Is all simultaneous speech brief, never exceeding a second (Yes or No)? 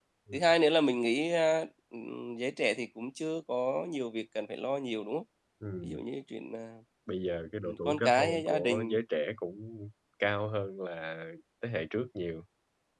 No